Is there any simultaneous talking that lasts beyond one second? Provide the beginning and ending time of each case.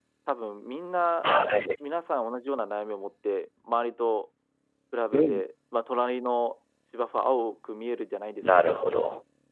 none

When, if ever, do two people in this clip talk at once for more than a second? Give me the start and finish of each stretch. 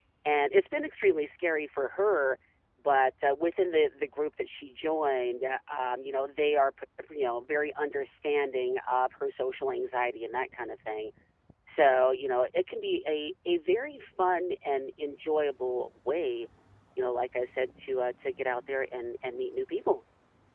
none

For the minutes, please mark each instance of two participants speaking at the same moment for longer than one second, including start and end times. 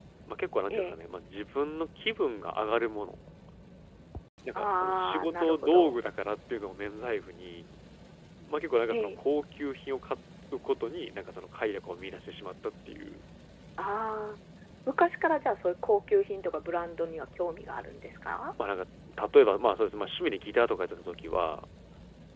4.6-6.0

